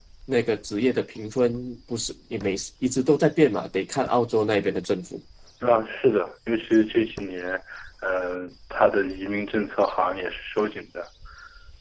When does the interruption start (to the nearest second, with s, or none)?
none